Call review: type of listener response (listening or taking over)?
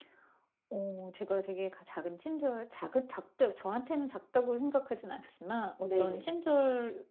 listening